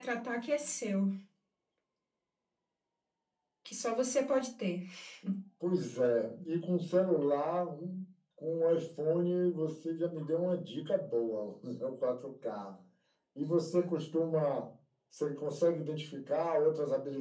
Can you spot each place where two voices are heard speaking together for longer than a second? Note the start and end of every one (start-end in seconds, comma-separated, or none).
none